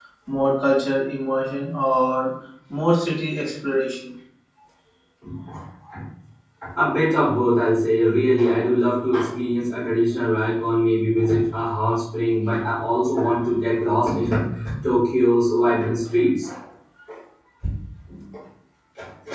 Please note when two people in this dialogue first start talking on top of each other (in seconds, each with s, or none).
none